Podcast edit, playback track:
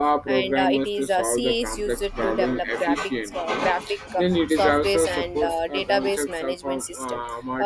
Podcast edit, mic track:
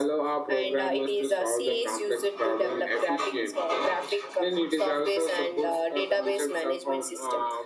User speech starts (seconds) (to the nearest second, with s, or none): none